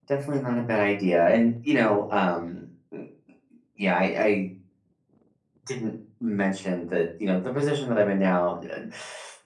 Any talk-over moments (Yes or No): No